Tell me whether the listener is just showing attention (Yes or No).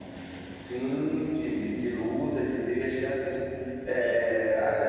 Yes